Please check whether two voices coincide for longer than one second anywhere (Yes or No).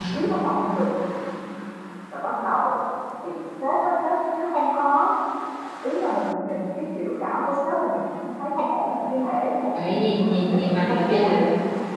Yes